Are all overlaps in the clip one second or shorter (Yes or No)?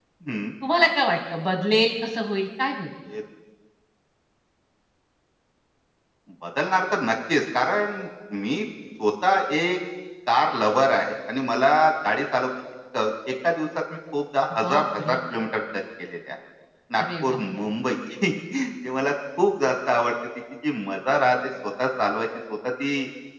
Yes